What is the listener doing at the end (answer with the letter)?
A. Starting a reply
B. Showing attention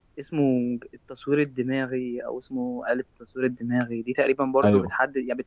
B